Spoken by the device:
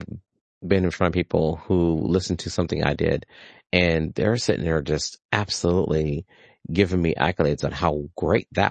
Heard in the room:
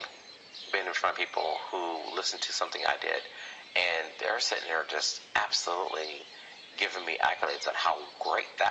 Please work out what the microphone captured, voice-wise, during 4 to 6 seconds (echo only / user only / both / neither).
echo only